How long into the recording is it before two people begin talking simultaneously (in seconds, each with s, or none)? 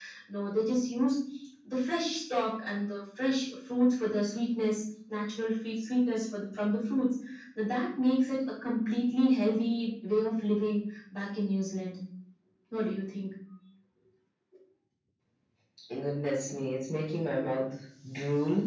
none